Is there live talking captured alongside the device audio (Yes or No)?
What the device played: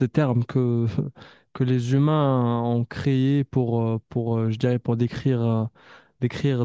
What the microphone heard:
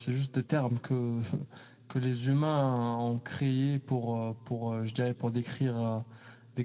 No